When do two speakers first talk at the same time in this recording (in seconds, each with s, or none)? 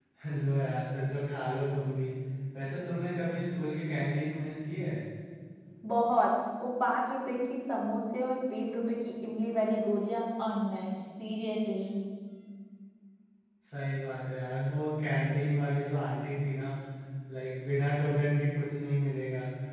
none